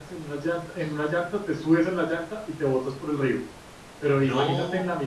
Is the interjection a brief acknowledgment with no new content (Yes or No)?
Yes